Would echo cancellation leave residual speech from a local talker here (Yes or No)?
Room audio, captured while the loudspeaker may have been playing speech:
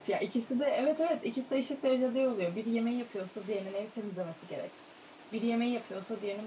Yes